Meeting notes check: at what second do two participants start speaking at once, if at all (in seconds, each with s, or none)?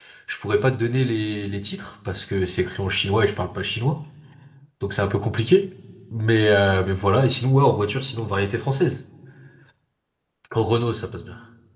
none